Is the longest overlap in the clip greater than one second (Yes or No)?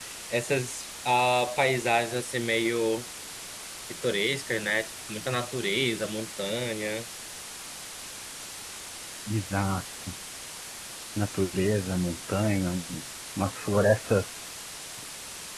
No